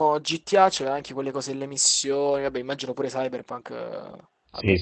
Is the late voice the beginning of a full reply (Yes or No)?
Yes